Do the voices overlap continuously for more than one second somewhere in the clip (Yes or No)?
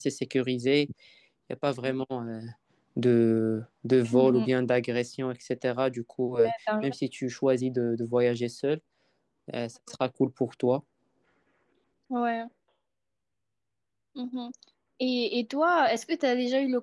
No